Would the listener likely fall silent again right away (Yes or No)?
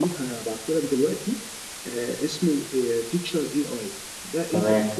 Yes